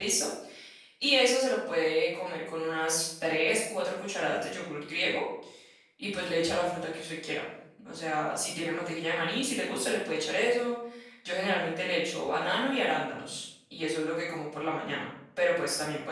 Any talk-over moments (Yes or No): No